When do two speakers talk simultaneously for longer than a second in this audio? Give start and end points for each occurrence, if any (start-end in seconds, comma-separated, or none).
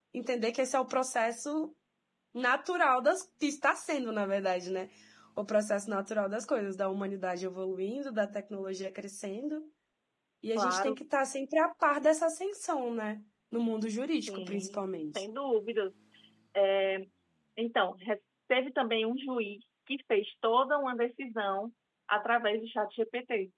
14.0-15.2